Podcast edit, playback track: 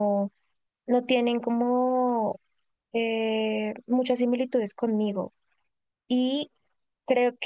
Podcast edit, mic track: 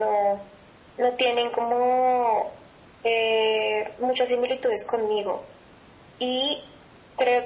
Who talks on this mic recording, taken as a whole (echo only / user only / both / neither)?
echo only